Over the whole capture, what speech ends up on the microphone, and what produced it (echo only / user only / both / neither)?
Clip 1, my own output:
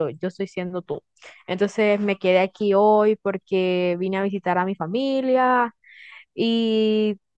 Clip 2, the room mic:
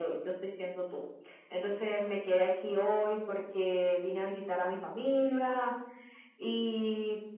echo only